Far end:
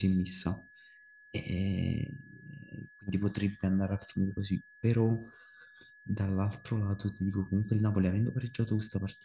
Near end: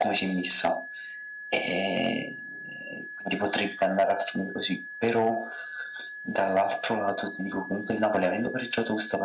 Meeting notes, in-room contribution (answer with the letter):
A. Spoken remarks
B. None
B